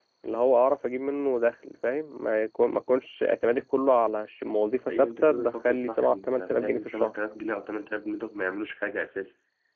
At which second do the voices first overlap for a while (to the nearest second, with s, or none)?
5 s